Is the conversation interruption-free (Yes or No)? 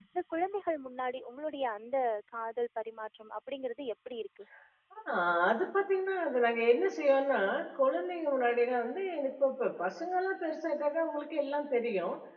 Yes